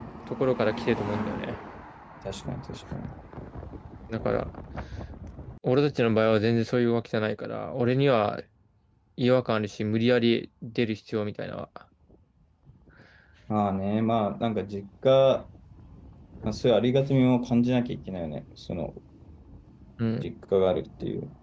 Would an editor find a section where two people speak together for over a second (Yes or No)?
No